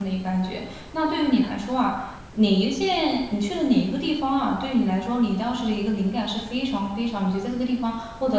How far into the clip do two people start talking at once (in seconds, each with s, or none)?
none